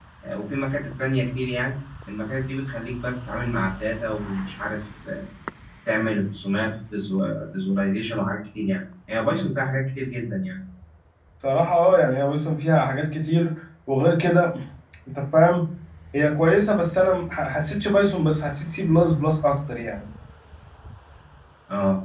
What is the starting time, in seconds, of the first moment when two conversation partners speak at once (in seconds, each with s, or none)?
none